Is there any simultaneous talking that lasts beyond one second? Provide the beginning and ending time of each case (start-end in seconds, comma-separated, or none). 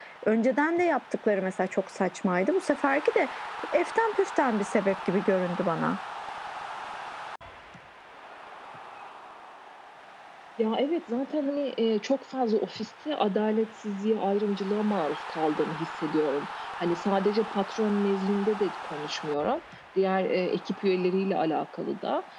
none